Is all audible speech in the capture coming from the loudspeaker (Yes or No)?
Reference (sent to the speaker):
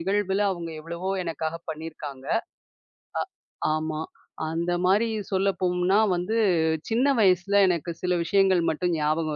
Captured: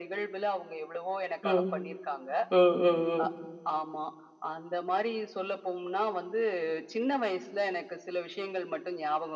No